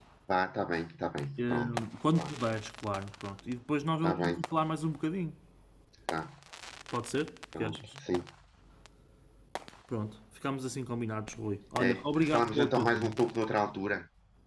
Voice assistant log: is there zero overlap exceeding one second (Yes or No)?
No